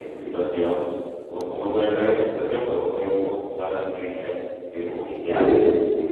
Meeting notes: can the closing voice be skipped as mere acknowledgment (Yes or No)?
Yes